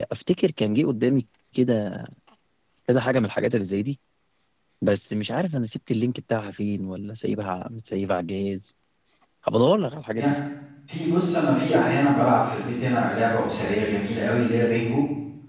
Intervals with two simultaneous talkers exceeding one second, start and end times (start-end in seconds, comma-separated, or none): none